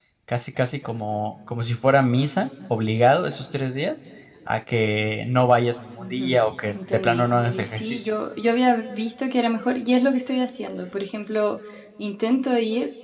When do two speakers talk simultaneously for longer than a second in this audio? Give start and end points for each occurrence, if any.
6.0-8.1

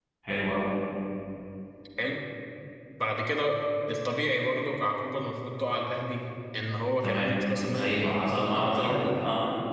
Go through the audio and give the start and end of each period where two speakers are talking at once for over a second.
7.7-9.2

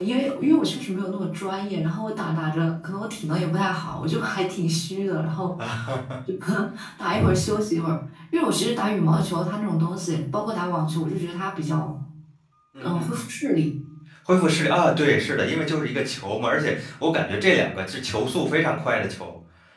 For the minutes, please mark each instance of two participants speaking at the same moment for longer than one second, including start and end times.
none

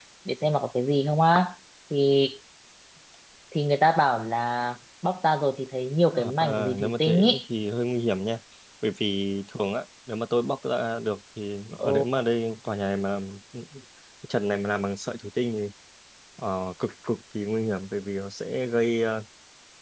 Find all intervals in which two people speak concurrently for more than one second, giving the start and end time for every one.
6.1-7.4

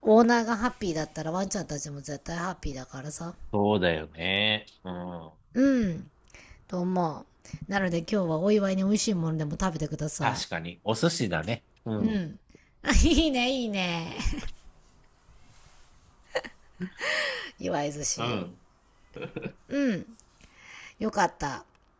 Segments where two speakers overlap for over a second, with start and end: none

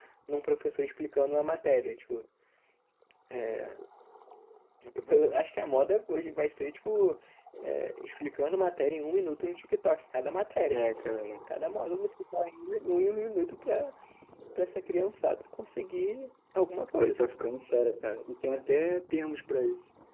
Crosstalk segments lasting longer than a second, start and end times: none

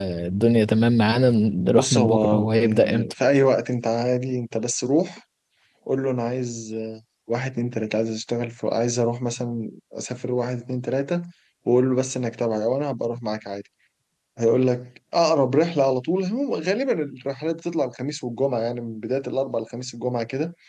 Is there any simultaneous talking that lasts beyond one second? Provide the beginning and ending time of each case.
1.7-3.1

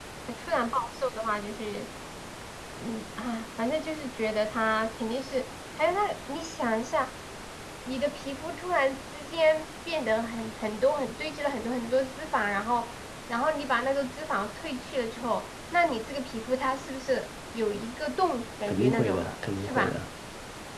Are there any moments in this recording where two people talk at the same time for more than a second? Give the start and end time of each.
18.7-20.0

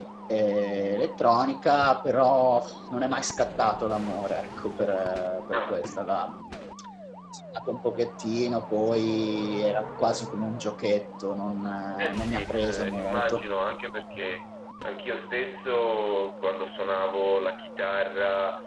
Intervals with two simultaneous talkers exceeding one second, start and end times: 12.0-13.4

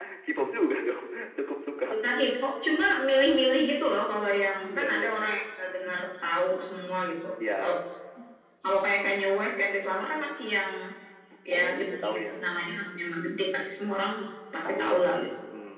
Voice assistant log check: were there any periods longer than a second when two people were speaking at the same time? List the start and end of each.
11.5-12.9

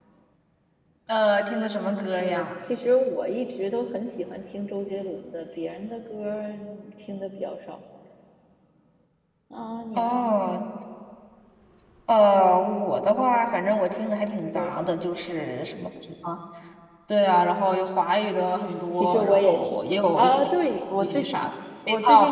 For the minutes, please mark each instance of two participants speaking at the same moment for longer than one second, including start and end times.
18.9-20.3

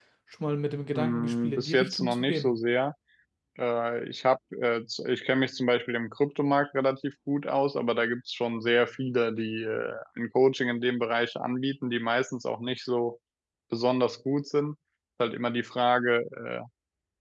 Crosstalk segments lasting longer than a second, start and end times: 0.9-2.6

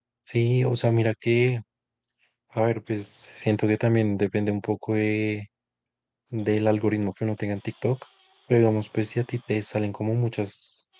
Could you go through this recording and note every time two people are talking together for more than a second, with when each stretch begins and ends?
none

